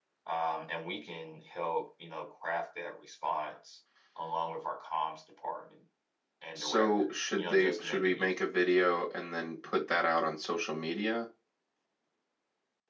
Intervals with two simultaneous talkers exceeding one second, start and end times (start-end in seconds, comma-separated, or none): 6.5-8.4